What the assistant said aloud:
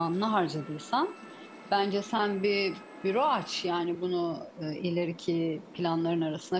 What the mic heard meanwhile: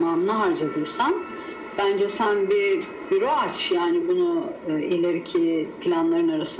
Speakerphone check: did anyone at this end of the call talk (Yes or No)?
No